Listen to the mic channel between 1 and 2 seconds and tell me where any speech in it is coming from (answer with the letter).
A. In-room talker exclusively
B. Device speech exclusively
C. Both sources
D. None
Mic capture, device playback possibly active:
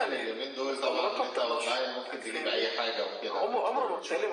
C